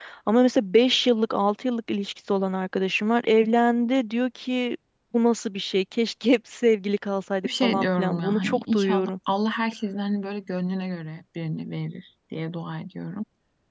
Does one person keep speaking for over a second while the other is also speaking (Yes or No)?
Yes